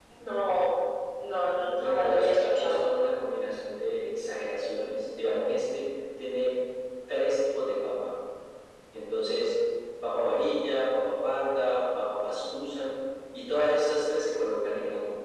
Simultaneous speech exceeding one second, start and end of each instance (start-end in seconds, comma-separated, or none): 1.6-2.8